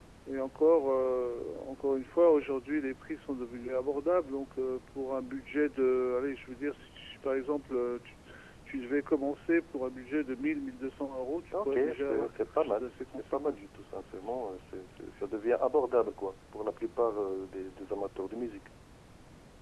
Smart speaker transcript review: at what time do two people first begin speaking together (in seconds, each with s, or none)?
11.5 s